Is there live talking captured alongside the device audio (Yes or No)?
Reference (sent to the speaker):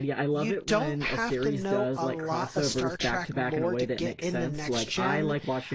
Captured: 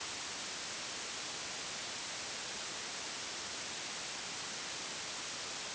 No